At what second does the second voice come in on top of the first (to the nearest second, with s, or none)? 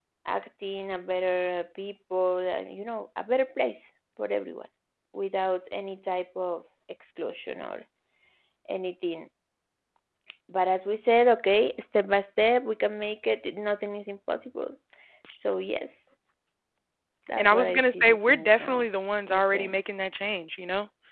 17 s